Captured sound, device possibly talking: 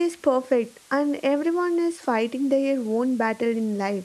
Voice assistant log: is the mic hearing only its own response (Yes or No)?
No